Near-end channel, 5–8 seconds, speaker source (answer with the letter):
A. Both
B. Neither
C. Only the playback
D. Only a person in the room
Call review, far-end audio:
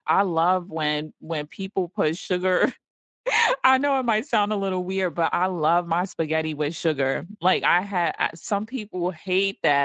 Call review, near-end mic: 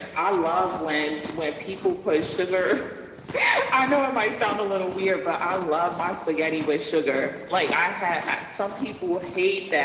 C